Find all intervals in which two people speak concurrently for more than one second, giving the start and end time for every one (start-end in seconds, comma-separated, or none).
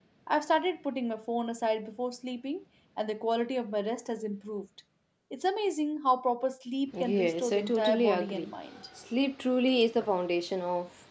7.0-8.5